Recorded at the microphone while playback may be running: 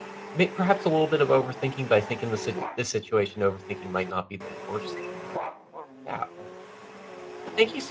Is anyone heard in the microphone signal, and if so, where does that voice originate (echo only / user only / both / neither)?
user only